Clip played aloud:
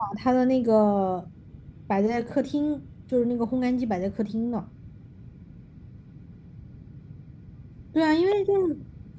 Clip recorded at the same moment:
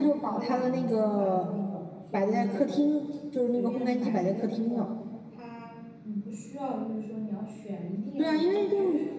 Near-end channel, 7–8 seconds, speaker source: user only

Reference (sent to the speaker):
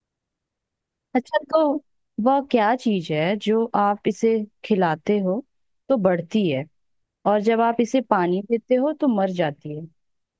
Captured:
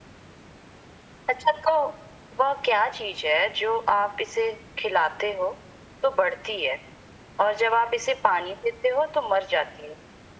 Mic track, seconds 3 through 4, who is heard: echo only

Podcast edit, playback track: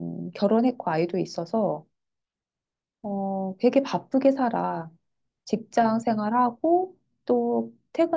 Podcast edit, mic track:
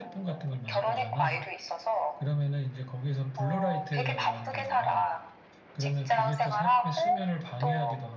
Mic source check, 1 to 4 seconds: both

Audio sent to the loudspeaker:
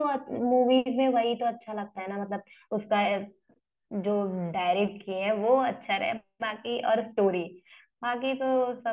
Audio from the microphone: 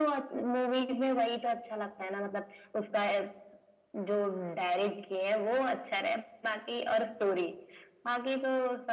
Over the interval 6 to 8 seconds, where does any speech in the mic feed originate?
echo only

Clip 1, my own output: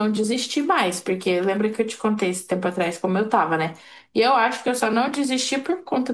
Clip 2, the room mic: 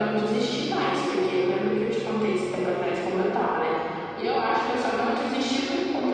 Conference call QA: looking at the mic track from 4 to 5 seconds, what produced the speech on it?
echo only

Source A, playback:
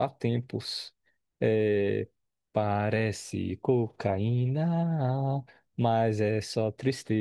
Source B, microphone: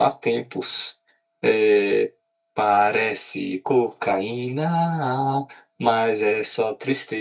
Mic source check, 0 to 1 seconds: echo only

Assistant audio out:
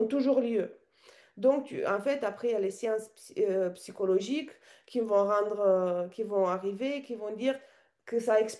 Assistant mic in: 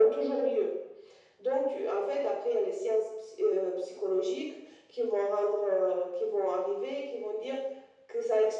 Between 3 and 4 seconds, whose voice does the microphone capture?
echo only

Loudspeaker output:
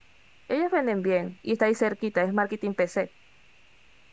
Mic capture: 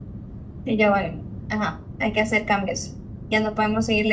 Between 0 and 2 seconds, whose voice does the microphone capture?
user only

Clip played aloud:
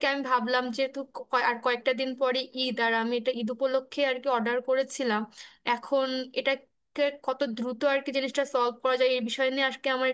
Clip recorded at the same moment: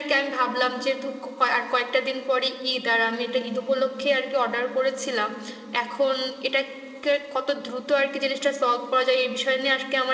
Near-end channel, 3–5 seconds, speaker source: echo only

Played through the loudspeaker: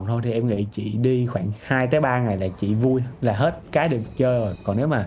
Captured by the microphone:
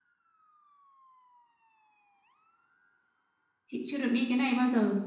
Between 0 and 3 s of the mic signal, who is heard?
neither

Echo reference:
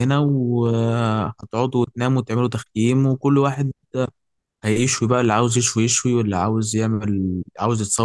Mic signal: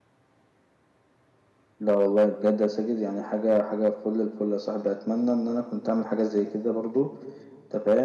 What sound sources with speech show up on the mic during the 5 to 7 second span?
user only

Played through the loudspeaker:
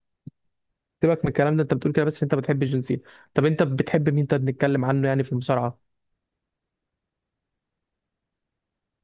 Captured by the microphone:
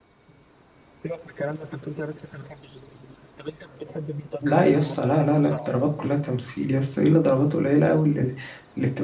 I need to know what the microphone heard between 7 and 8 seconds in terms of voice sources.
user only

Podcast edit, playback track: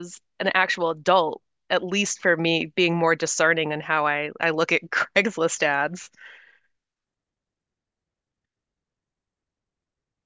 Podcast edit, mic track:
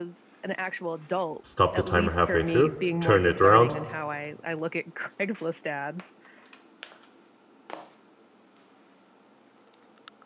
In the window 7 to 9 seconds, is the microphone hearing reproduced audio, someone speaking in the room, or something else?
neither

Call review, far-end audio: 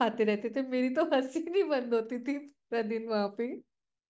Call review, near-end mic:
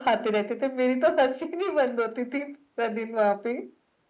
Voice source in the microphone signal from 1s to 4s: echo only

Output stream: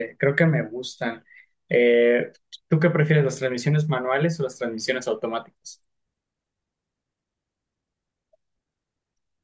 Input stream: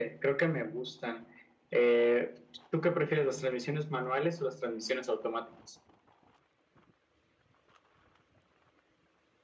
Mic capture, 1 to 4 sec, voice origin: echo only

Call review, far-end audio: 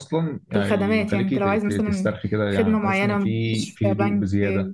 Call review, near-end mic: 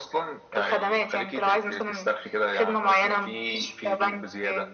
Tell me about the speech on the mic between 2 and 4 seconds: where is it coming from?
echo only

